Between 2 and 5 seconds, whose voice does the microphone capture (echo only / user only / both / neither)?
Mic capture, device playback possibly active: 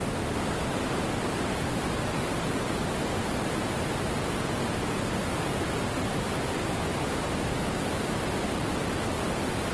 neither